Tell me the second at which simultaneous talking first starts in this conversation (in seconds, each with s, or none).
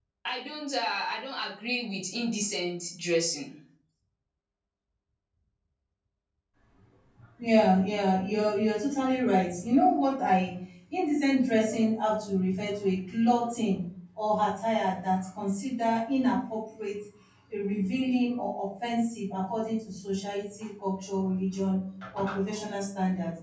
none